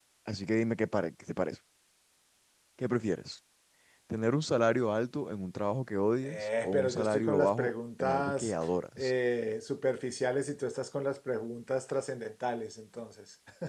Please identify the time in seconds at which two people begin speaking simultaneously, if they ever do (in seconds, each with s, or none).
6.2 s